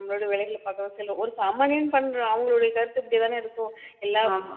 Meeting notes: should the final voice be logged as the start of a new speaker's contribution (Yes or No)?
No